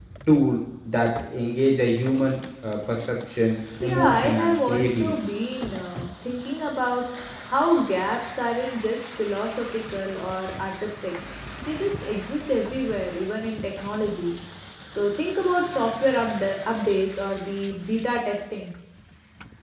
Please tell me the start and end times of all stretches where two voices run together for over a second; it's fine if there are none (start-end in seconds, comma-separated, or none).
3.8-5.3